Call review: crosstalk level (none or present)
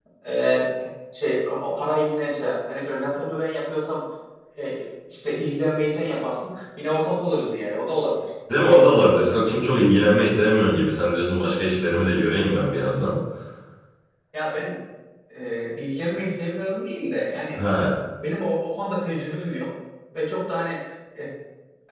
none